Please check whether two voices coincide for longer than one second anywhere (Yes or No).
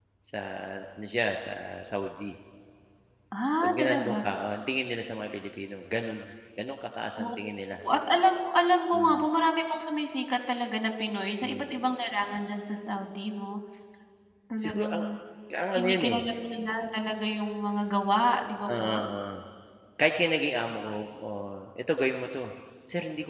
No